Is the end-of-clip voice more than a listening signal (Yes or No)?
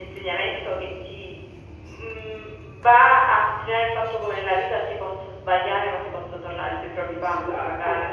Yes